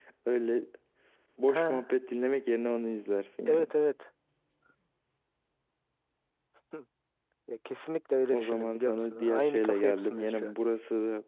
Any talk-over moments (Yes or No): Yes